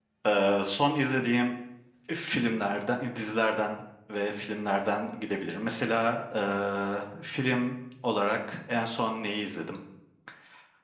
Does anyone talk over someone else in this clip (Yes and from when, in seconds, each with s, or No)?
No